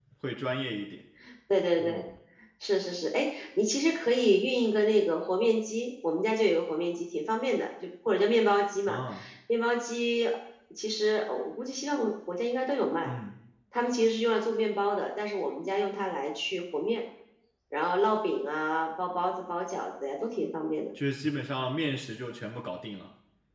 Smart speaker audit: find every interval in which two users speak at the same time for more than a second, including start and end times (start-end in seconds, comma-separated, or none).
none